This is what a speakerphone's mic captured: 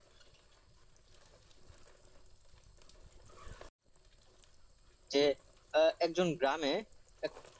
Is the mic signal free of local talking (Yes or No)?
No